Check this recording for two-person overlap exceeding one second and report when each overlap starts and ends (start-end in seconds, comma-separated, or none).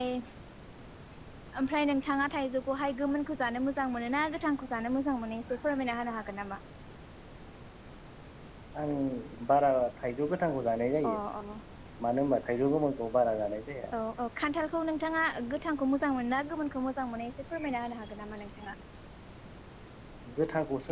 none